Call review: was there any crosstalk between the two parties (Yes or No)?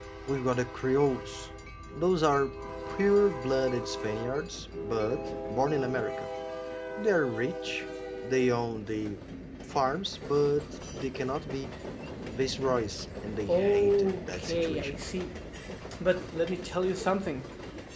Yes